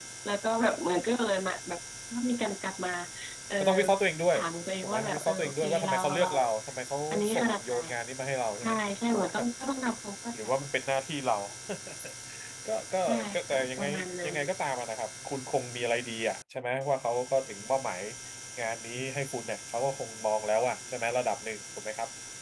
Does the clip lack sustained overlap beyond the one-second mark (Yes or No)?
No